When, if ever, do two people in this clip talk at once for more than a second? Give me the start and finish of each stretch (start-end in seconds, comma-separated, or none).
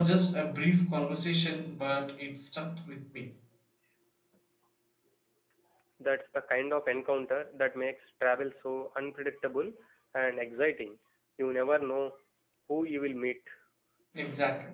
none